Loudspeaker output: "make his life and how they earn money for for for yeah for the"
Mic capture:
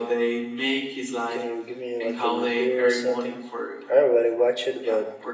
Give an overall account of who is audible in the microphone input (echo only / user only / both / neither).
both